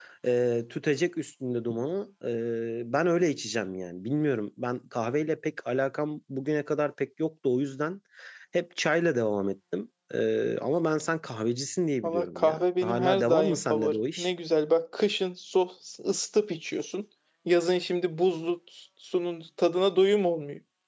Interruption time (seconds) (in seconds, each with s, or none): 12.0 s